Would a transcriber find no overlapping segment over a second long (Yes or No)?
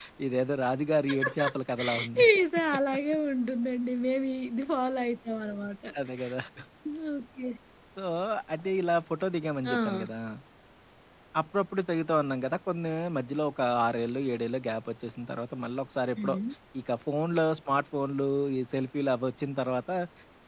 Yes